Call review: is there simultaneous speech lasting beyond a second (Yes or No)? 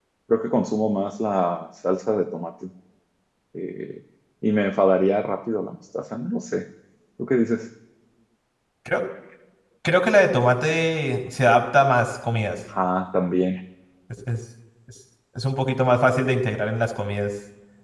No